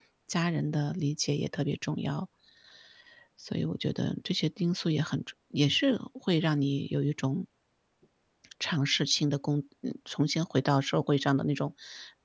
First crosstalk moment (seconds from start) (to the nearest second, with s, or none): none